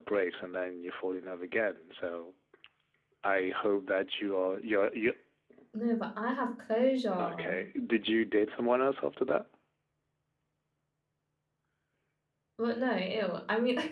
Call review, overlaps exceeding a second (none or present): none